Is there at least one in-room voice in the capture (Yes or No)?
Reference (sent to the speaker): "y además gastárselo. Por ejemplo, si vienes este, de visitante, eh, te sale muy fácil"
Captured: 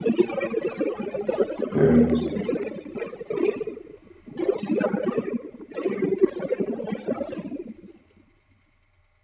Yes